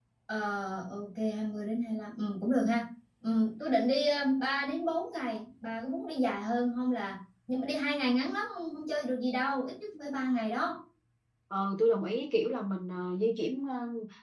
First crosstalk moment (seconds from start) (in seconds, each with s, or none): none